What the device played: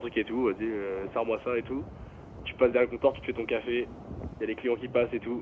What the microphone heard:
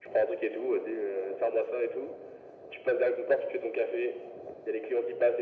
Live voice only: none

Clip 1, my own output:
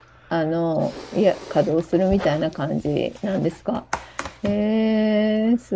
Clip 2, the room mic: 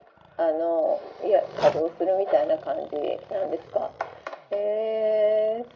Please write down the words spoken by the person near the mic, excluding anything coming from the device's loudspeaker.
none

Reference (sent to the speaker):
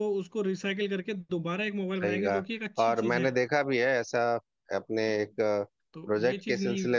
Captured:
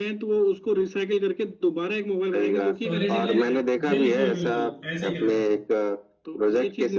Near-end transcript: सॉलिड निकलेगा बिल्कुल बिल्कुल ऐसे ही करा जाता है

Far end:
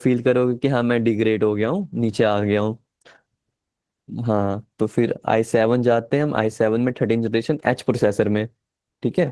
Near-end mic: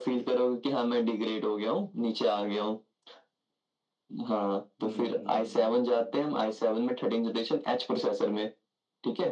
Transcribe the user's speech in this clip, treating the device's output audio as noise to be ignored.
हम्म

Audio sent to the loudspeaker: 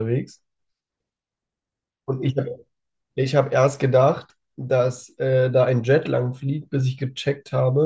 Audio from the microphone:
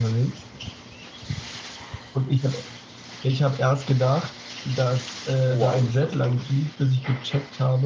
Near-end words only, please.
Wow, ist das eng.

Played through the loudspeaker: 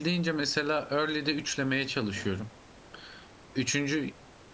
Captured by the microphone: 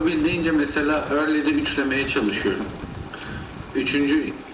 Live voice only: none

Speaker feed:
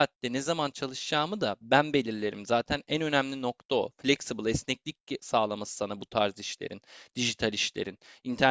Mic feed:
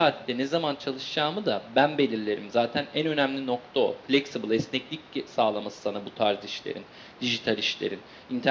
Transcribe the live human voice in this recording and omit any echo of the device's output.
none

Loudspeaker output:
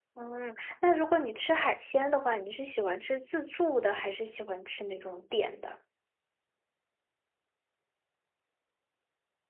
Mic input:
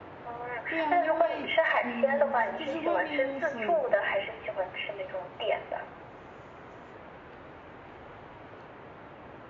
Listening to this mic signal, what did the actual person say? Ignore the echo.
对啊，因为嗯，就是外面很，

